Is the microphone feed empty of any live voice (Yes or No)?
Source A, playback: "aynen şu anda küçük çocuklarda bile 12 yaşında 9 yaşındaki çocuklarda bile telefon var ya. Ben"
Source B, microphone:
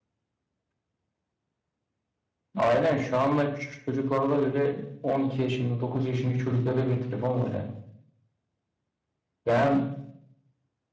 Yes